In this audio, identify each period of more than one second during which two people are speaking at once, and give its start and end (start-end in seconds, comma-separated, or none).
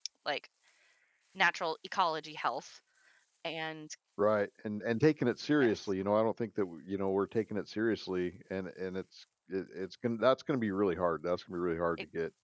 none